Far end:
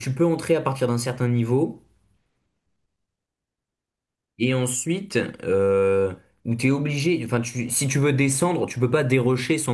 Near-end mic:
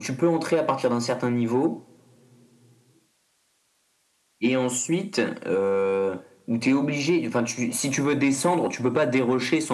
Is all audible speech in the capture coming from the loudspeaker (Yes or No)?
Yes